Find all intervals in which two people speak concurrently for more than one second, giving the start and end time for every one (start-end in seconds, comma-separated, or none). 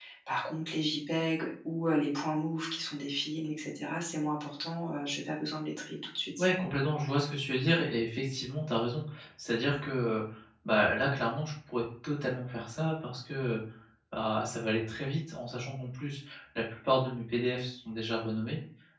none